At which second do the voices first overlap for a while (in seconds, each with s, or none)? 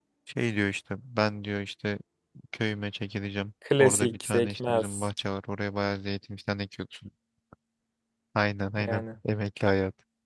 3.8 s